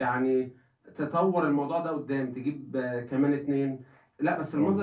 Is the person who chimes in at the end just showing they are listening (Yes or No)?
Yes